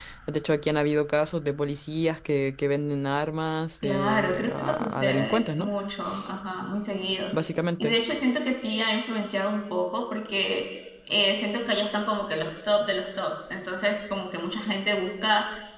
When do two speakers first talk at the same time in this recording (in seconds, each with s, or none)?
3.8 s